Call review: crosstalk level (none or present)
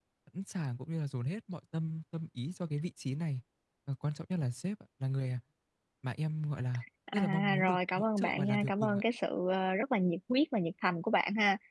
present